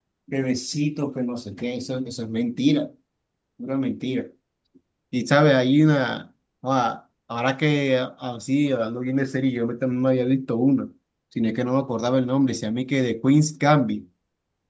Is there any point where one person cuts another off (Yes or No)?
No